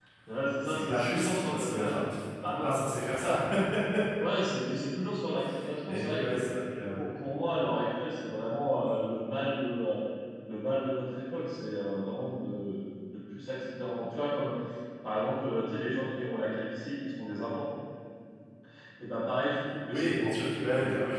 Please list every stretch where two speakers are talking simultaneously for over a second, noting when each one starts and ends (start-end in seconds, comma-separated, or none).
0.7-1.9